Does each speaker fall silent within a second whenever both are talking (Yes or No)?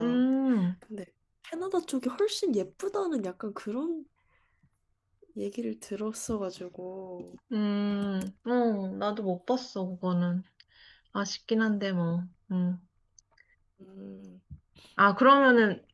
Yes